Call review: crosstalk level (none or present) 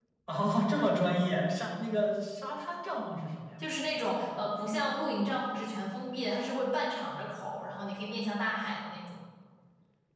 none